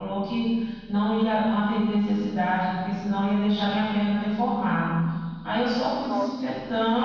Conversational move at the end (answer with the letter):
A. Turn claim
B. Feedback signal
B